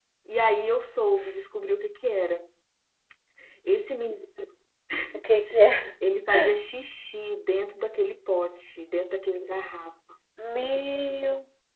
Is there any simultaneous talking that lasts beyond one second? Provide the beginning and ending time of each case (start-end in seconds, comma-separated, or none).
none